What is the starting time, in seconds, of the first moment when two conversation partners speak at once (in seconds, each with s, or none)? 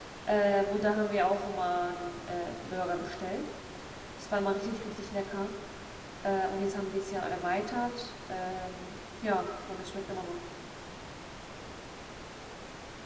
none